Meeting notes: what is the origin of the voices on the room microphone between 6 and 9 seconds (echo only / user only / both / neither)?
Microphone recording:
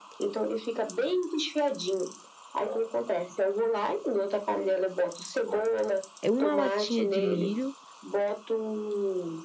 both